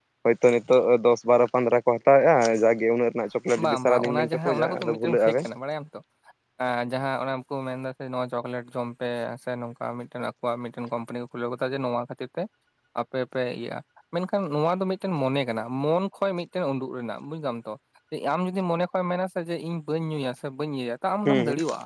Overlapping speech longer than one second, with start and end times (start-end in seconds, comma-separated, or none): 3.6-5.5